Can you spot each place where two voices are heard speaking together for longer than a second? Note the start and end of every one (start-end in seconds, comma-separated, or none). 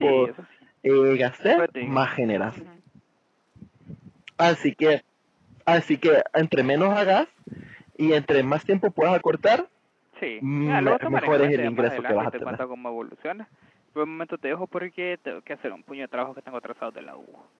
10.4-12.6